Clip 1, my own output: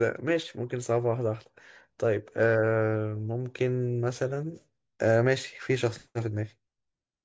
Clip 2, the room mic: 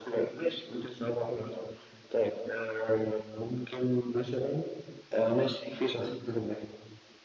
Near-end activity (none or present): none